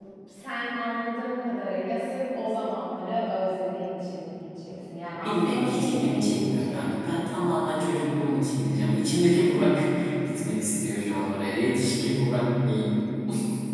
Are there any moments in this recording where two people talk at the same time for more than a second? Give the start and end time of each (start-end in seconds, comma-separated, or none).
5.1-7.0